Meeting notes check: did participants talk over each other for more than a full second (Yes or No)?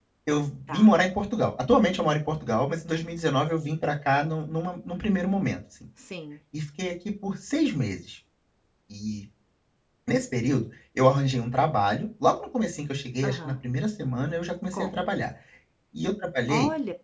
No